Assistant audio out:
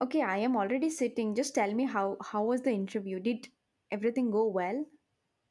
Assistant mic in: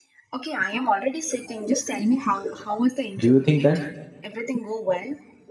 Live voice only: Do you think that?

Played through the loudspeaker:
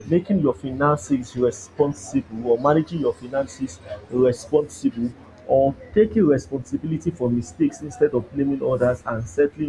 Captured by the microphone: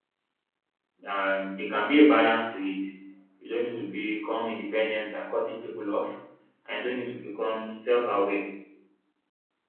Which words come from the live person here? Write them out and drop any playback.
um there can be a balance to it you don't need to become independent by cutting people off and you don't need to become self-aware

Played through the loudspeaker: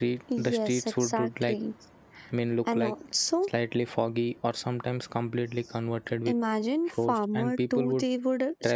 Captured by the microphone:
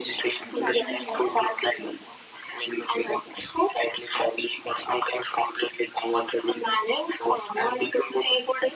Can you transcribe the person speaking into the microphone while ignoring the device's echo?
and chatting there

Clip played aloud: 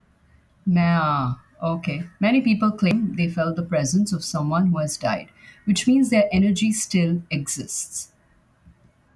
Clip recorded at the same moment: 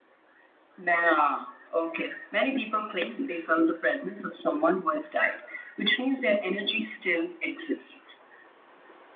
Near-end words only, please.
none

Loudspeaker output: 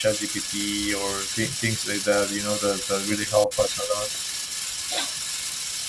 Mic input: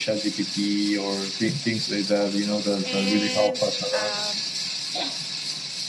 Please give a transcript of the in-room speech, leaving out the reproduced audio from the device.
and um,

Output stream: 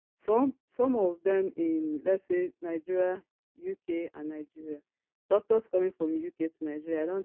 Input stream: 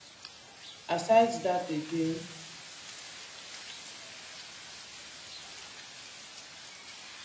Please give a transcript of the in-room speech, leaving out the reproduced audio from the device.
Aside that again,

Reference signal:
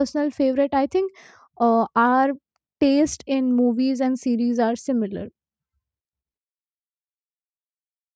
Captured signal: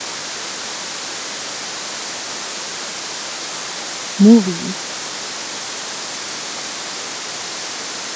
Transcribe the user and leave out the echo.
movie

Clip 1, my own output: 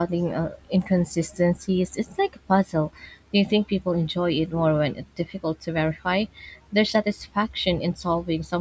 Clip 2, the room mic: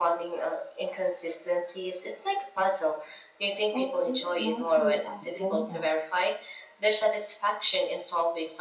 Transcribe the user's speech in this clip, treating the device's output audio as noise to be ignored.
or is it mostly accidental?

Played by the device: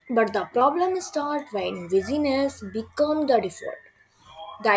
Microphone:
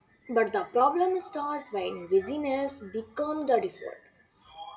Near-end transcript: none

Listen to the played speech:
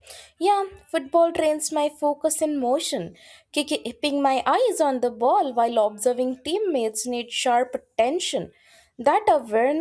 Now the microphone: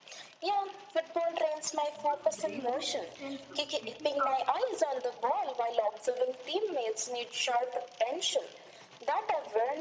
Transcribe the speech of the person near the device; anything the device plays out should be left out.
This bravery extends to speaking up

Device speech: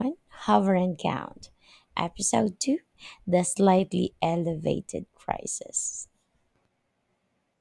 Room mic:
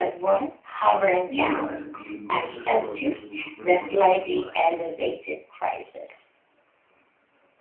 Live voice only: Meanwhile, I'm in the grocery store just whispering numbers at the rice check.

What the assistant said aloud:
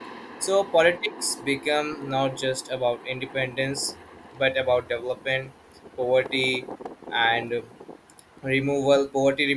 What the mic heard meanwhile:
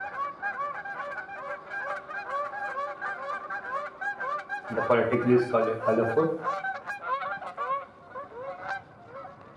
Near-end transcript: the political is color- colorful

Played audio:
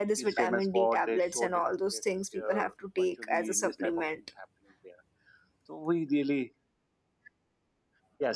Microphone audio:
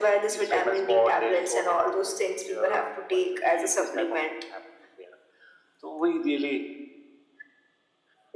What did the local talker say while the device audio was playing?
none

